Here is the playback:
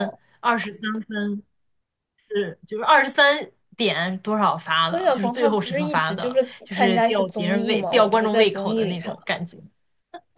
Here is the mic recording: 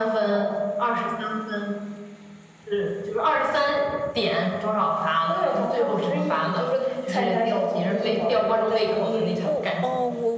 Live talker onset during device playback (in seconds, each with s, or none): 9.4 s